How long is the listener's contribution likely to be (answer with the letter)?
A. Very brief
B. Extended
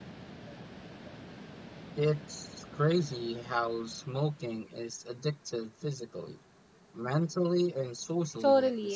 B